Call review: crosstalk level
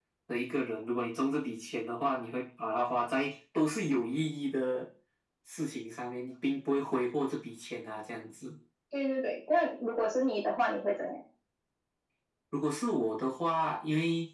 none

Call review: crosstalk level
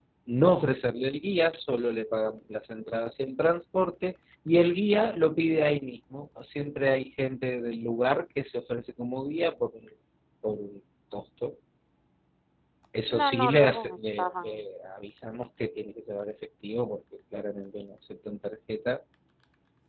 present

